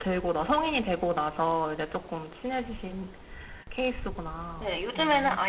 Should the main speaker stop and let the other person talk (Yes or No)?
Yes